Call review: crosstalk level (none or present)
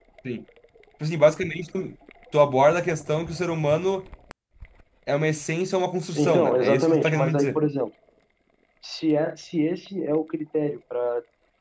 present